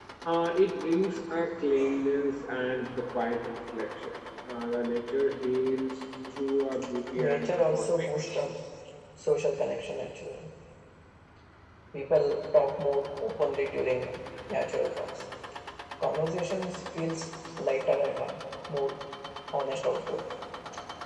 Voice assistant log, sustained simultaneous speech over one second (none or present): present